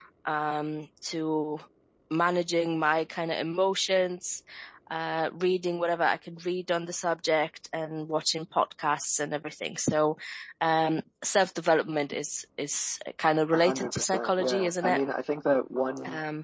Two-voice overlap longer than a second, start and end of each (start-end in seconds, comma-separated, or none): 13.5-15.0